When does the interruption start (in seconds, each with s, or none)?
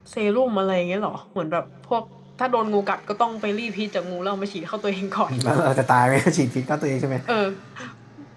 none